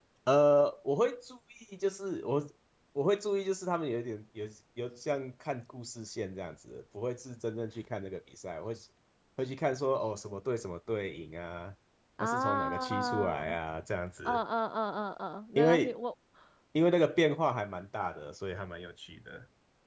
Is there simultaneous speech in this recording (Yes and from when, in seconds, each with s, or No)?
Yes, from 12.2 s